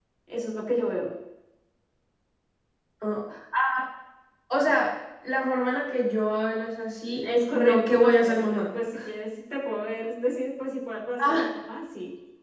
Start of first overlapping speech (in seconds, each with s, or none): 7.2 s